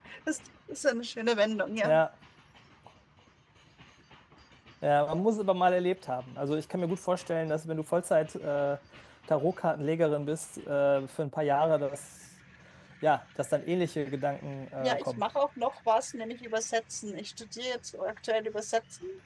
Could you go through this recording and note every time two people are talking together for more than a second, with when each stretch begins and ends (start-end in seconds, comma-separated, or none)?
none